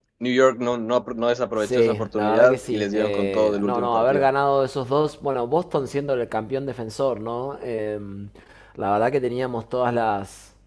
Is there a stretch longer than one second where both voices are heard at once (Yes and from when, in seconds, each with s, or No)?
Yes, from 1.6 s